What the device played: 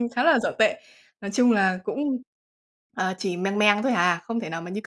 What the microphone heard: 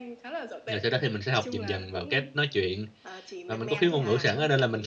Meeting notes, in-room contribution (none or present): present